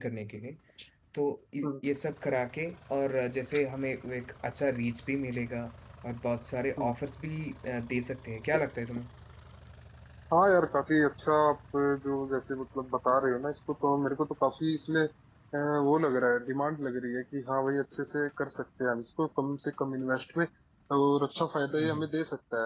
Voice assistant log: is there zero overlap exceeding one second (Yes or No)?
Yes